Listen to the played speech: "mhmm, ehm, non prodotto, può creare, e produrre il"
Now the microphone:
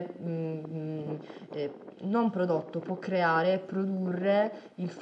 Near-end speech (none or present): none